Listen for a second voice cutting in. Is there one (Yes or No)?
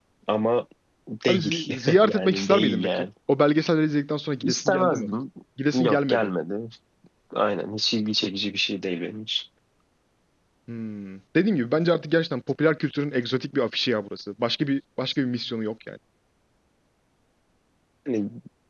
Yes